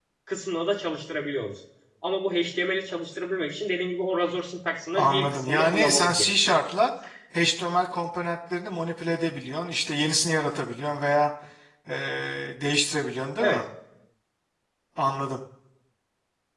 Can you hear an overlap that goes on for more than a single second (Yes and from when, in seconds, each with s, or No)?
Yes, from 5.0 s